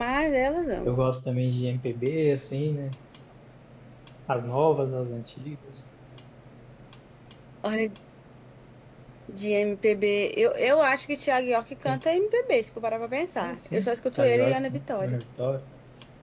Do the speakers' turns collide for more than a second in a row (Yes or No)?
Yes